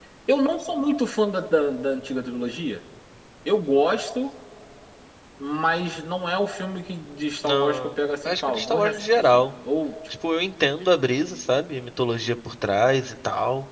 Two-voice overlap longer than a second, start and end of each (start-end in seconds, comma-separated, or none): 7.5-9.4